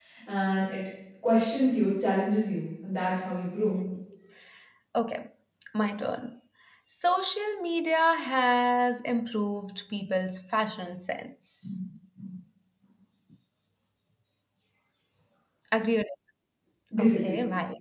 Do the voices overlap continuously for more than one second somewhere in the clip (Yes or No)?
No